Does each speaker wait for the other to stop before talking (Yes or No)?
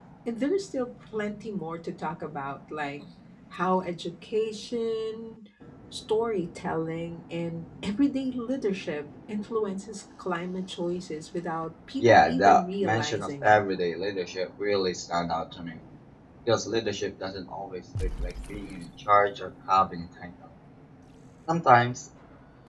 No